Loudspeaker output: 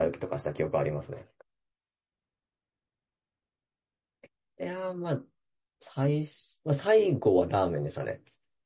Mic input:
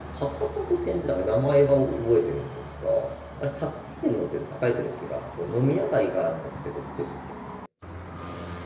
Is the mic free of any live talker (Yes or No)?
No